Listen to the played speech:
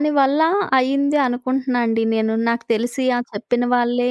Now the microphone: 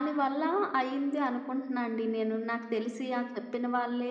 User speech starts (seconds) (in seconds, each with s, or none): none